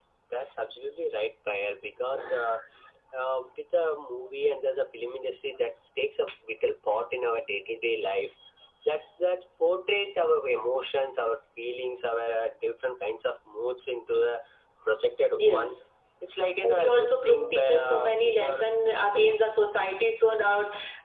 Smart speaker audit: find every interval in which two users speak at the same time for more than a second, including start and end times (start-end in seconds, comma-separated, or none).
16.6-19.4